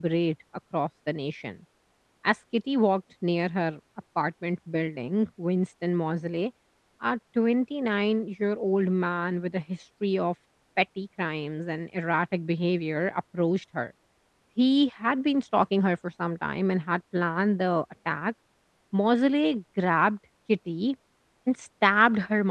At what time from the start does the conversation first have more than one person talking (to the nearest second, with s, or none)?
none